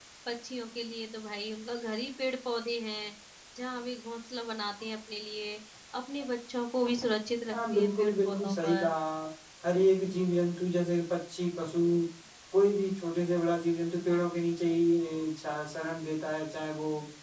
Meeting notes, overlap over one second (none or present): present